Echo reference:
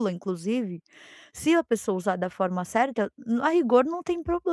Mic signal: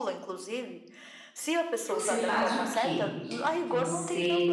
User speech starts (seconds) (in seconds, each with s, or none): 1.8 s